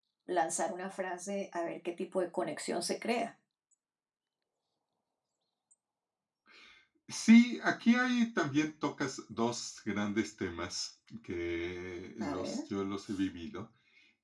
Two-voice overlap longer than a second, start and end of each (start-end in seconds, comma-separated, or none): none